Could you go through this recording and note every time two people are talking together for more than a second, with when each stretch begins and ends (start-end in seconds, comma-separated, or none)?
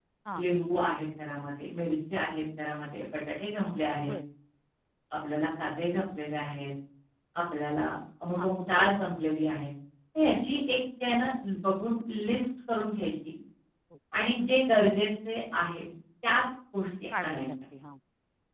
none